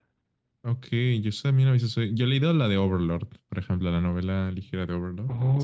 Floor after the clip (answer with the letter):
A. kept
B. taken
B